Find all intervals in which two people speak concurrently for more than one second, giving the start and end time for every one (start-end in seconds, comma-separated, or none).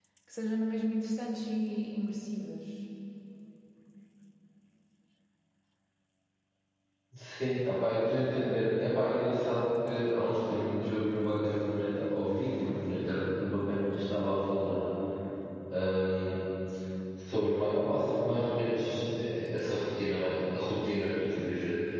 none